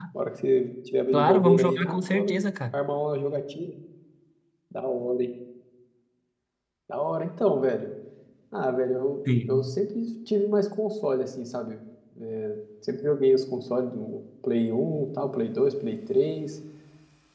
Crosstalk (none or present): present